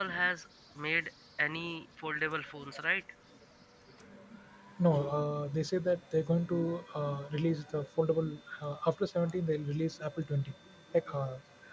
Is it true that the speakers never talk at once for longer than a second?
Yes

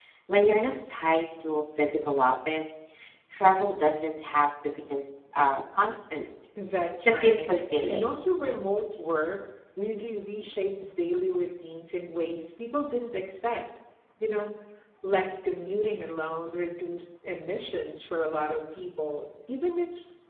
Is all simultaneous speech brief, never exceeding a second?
Yes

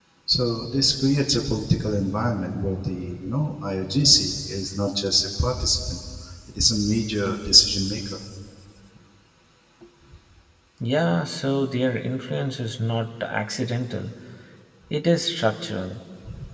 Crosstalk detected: No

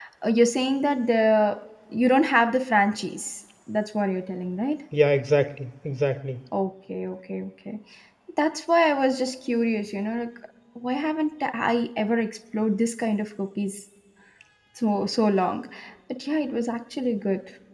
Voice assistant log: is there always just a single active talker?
Yes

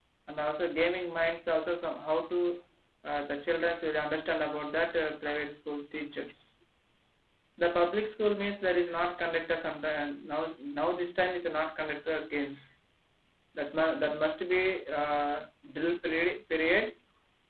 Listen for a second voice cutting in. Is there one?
No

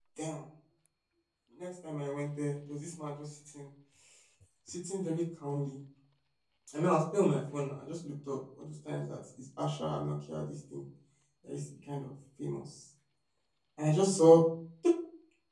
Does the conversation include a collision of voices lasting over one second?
No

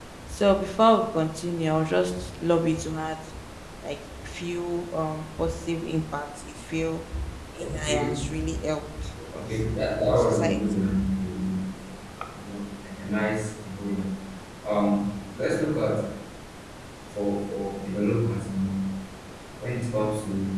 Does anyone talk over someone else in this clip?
Yes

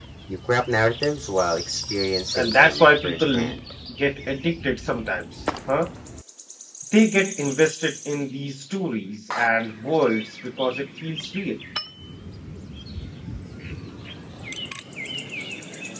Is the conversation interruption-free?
No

